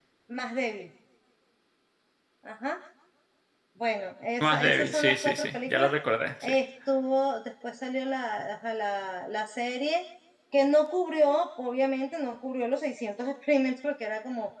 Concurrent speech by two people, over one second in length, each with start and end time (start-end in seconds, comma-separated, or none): 4.4-5.9